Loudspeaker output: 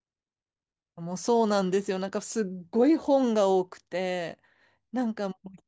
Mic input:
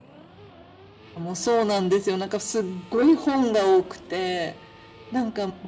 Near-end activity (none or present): none